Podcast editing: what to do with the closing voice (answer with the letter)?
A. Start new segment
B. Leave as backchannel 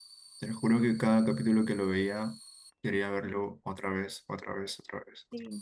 A